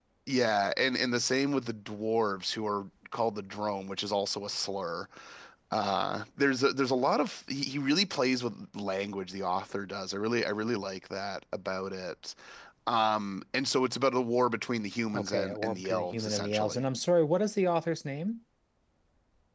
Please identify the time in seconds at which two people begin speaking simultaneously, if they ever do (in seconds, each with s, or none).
15.1 s